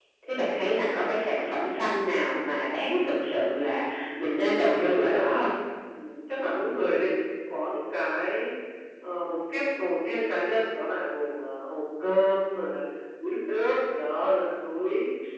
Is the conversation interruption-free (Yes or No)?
No